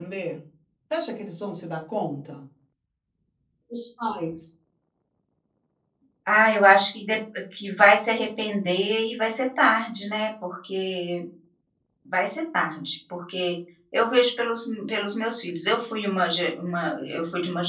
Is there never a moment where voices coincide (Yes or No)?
Yes